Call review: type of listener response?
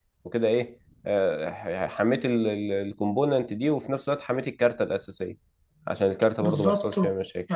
taking over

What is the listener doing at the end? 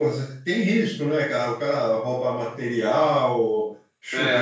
listening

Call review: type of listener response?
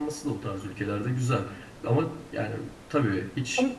listening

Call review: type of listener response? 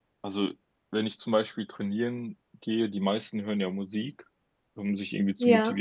listening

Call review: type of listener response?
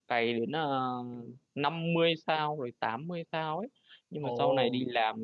listening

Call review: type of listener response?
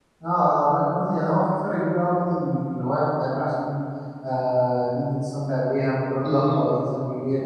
listening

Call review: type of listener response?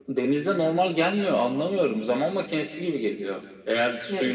listening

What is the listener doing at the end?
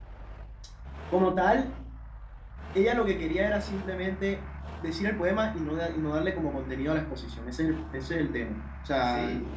listening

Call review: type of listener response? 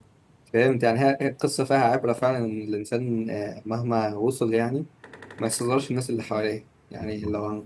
listening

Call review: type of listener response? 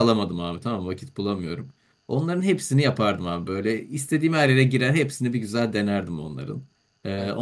listening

